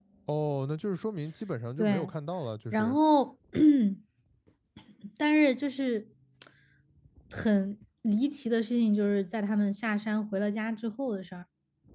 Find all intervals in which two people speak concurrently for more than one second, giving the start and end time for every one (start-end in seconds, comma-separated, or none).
none